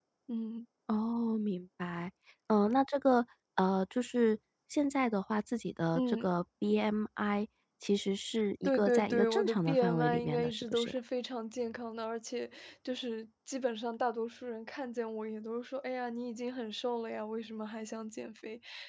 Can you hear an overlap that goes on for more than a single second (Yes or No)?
Yes